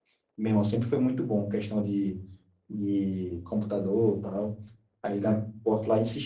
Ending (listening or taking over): listening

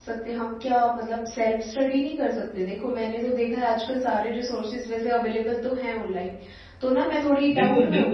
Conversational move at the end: taking over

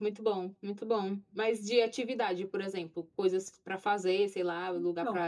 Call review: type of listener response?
taking over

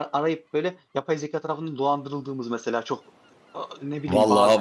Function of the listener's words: taking over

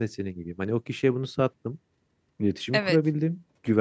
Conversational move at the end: listening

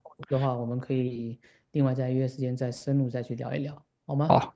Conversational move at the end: taking over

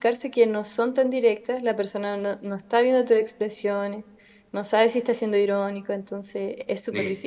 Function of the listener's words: taking over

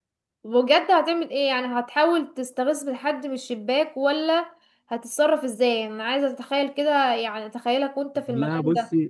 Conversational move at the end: taking over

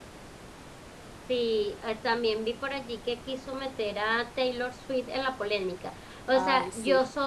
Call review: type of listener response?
listening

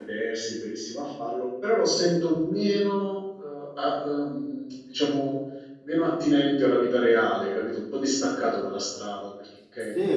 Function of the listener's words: taking over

